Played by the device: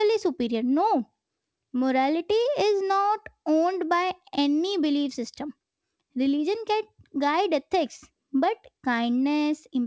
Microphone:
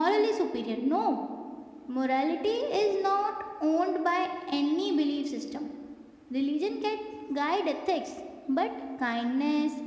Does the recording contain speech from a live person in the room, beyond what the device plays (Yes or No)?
No